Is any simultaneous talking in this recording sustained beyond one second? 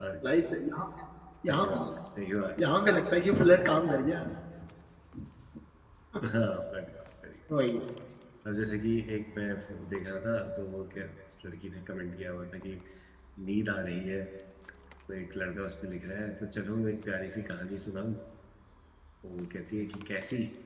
No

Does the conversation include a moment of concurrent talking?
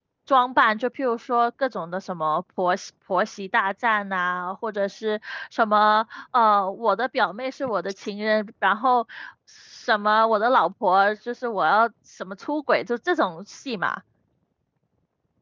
No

